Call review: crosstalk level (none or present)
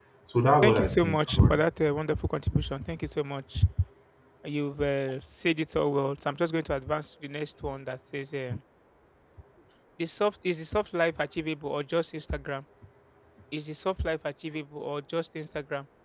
present